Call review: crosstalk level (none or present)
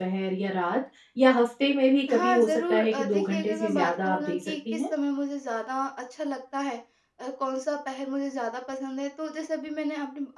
present